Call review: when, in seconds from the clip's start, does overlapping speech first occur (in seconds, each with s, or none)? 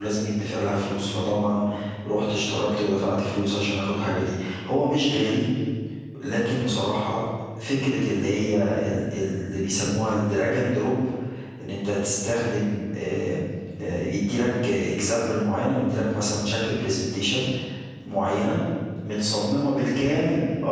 none